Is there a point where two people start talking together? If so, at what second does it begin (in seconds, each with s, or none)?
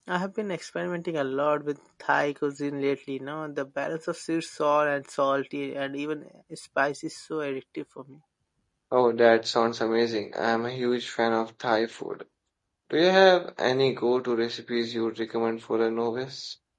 none